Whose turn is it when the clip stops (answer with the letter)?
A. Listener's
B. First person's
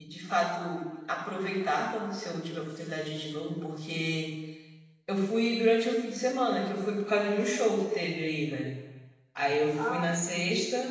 B